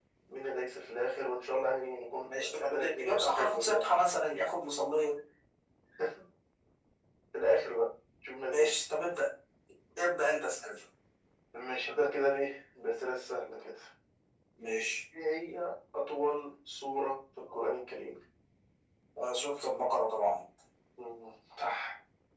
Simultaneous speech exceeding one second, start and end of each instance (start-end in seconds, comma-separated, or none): 2.2-3.9